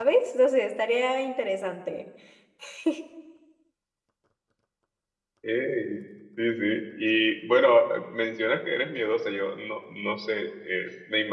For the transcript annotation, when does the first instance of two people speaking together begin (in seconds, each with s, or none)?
none